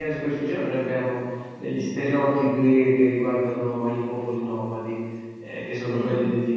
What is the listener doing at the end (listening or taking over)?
listening